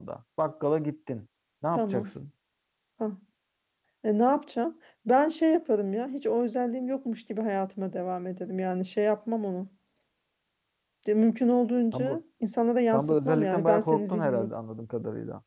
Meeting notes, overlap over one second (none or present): present